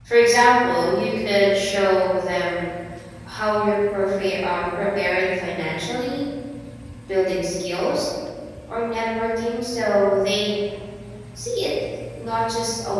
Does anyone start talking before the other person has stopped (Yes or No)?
No